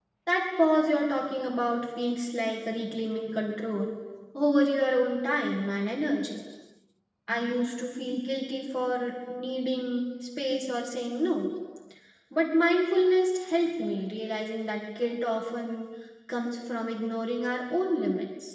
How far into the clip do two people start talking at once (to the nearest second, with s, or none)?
none